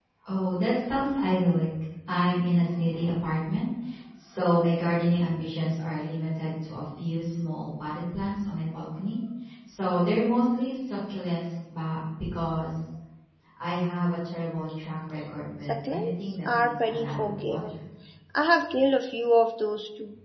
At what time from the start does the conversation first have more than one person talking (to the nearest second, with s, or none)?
16 s